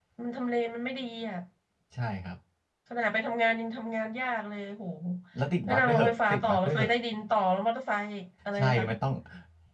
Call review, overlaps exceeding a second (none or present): present